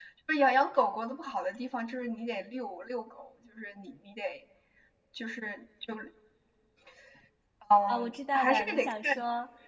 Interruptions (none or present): present